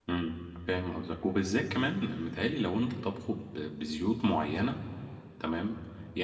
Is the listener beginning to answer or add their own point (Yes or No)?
No